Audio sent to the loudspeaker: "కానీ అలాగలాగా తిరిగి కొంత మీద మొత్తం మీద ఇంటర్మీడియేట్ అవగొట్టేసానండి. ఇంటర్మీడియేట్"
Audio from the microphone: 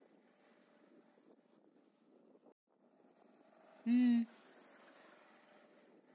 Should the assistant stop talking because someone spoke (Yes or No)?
Yes